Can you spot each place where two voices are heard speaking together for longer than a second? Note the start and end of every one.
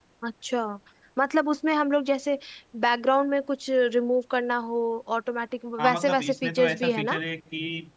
5.8-7.2

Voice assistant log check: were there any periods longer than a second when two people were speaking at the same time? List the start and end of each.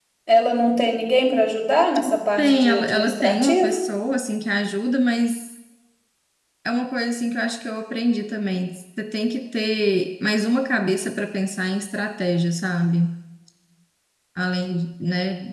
2.4-3.8

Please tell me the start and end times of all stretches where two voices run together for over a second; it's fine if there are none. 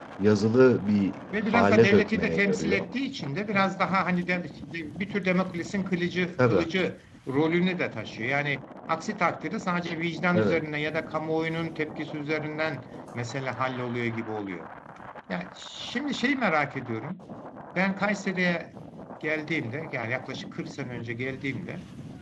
1.3-2.9

